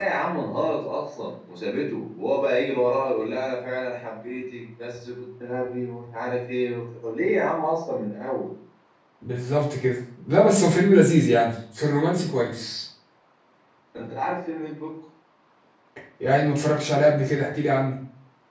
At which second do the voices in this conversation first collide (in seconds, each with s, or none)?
none